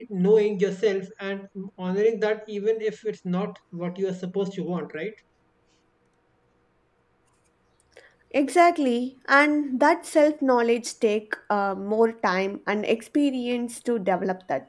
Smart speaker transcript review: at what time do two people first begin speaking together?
none

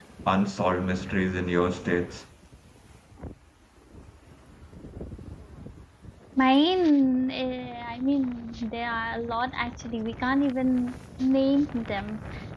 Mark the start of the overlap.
none

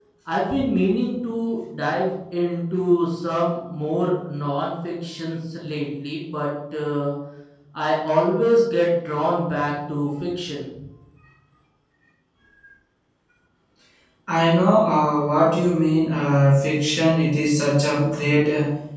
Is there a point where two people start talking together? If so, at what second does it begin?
none

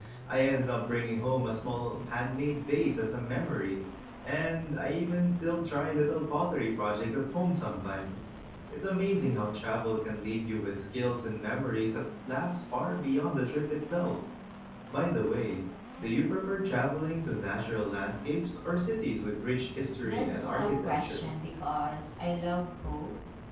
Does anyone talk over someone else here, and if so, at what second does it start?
20.0 s

